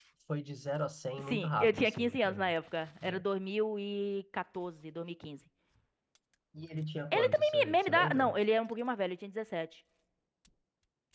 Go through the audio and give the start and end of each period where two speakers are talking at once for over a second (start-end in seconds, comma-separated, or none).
1.2-2.5, 7.1-8.3